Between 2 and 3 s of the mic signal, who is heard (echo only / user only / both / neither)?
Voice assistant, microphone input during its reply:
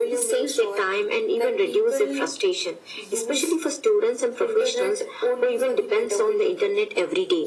echo only